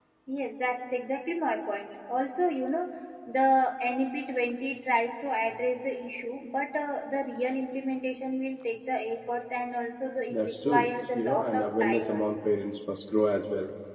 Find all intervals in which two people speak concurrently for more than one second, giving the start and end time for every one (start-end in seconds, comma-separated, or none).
10.3-12.2